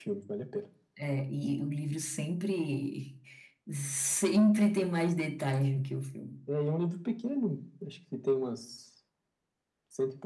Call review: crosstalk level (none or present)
none